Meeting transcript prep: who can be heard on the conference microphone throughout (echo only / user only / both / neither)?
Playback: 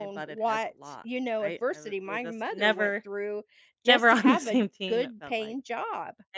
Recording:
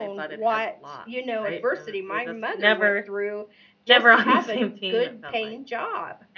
echo only